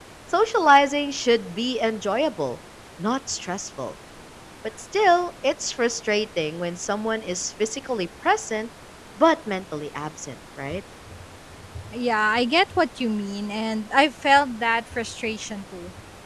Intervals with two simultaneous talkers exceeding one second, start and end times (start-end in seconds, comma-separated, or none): none